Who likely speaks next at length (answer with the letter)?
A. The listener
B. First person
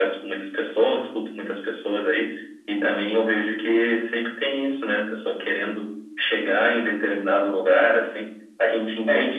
B